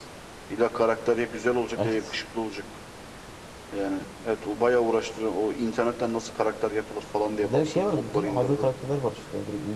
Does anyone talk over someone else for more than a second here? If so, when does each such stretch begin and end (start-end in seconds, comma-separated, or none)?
7.4-8.7